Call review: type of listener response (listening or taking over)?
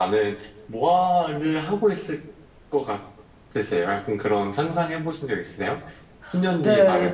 taking over